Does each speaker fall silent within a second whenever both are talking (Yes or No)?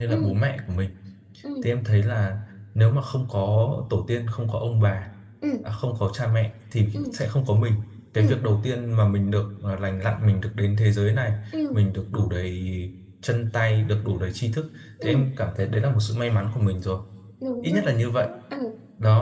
Yes